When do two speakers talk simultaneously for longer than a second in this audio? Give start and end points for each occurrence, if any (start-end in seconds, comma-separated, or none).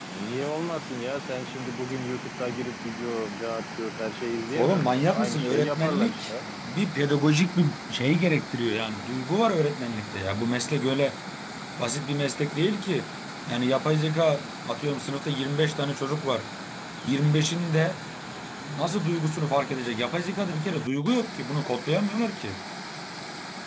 4.6-6.3